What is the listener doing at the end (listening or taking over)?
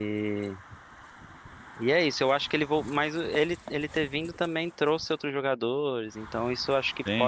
taking over